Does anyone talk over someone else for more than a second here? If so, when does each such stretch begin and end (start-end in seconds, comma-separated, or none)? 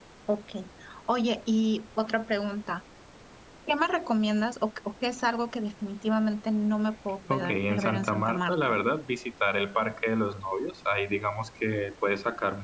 7.3-8.7